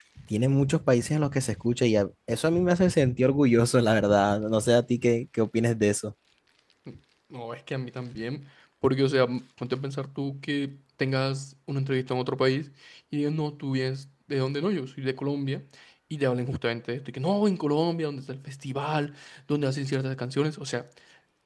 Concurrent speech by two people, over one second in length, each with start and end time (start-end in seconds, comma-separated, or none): none